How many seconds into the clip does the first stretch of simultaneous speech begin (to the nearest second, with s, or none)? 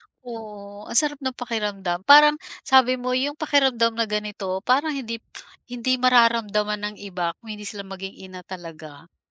none